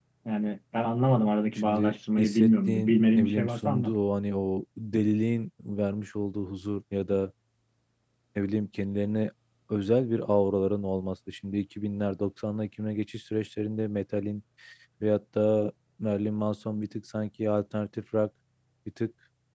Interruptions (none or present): present